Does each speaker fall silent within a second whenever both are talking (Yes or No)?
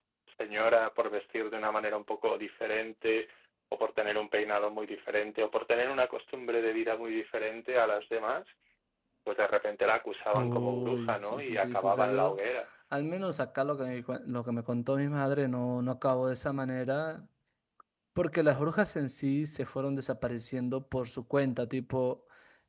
No